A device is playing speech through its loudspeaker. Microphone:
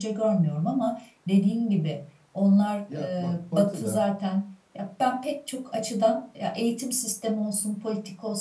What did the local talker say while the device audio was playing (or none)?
Ya bak Batı'da